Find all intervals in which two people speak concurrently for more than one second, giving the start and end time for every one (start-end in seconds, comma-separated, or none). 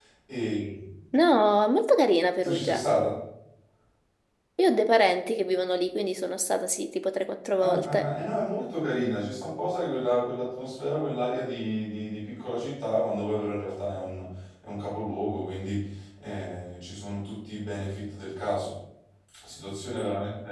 none